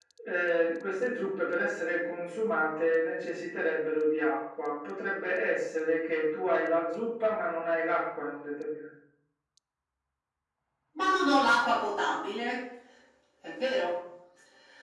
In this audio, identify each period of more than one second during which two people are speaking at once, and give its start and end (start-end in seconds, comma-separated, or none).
none